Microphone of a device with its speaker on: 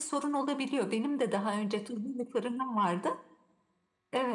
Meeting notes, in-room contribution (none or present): none